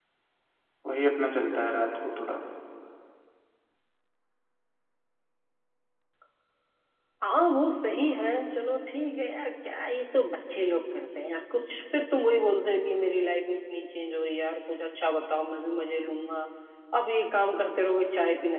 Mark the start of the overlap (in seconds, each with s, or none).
none